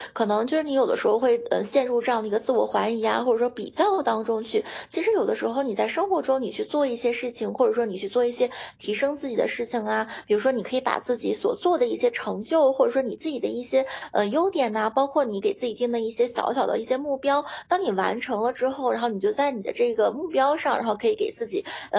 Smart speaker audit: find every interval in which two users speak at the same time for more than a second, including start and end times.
none

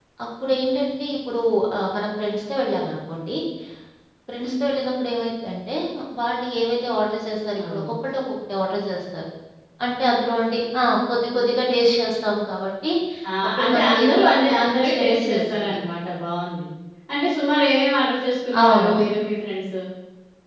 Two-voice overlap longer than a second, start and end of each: 13.6-15.6

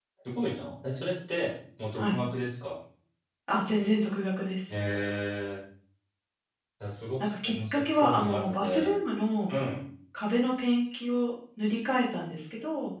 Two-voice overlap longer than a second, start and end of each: 7.2-8.9

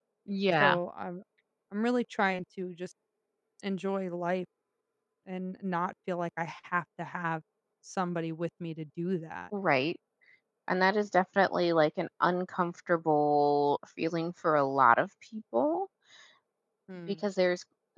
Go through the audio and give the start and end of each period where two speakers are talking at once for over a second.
none

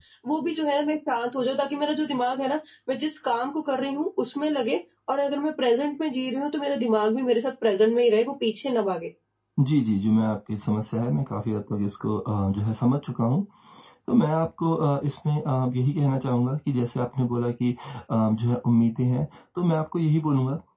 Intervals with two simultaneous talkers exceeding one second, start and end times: none

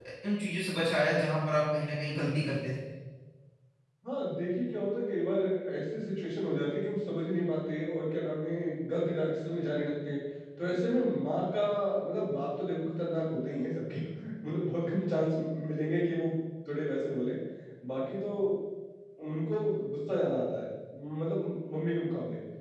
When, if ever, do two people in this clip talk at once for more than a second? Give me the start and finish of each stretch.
none

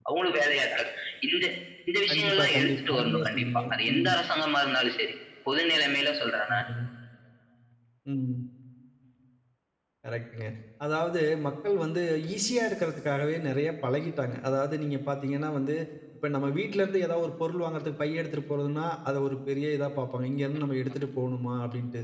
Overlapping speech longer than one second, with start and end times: 2.1-4.1

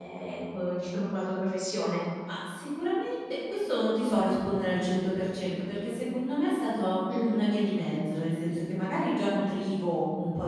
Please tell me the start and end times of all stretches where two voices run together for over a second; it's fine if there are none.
none

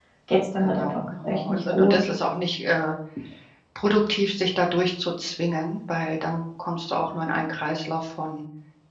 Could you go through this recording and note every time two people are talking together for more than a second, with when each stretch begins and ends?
0.6-2.1

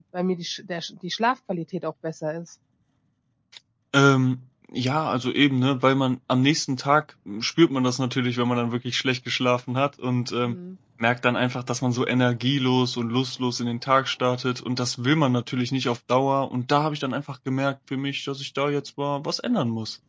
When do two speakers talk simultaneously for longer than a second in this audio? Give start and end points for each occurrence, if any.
none

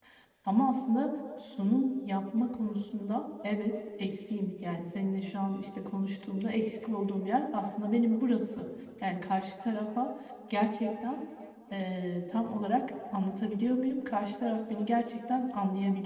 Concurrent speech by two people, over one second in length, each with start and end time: none

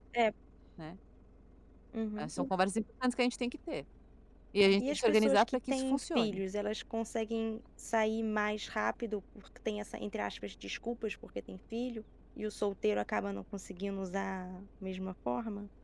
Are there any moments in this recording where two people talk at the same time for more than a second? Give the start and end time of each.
4.8-6.4

